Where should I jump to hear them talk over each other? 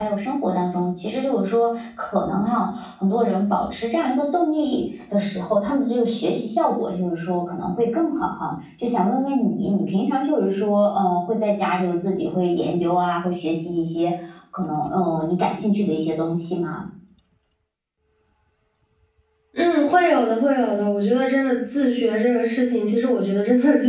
none

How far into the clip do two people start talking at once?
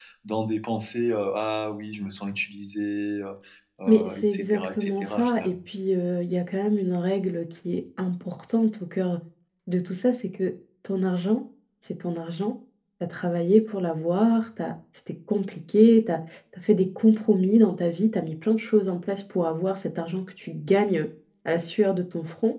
3.9 s

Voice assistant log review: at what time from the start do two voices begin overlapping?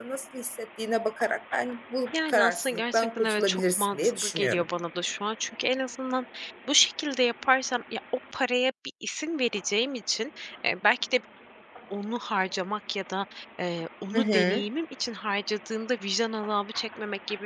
2.3 s

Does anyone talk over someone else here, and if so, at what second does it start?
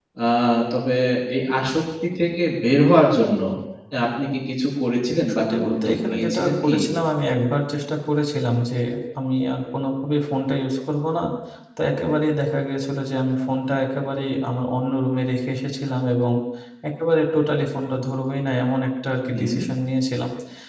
5.3 s

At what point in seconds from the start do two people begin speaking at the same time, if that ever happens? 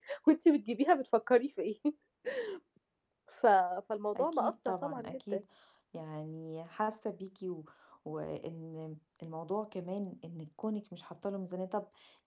4.2 s

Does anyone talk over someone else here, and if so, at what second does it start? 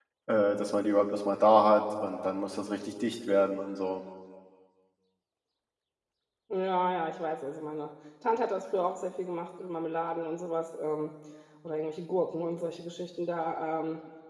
none

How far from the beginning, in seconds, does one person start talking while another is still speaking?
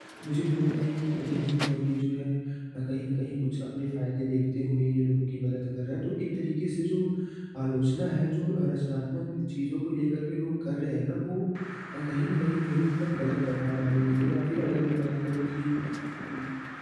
none

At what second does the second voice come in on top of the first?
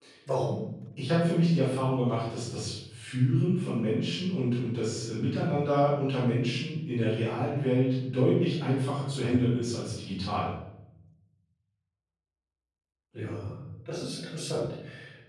none

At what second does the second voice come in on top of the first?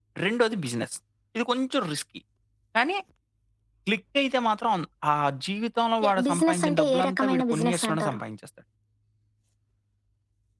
6.0 s

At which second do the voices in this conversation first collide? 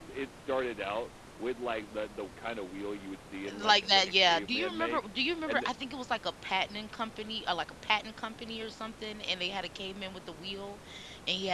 3.5 s

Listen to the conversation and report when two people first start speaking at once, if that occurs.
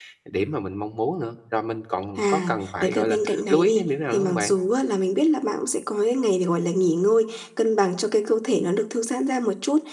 2.2 s

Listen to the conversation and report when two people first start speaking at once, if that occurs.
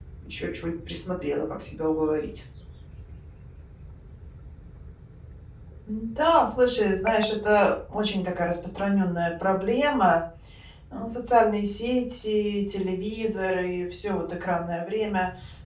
none

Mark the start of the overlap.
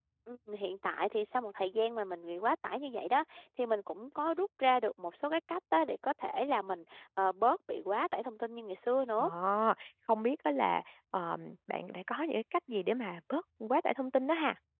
none

